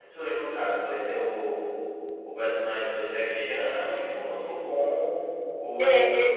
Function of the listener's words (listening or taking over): taking over